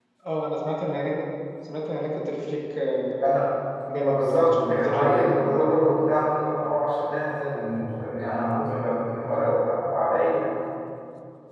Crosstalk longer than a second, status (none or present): present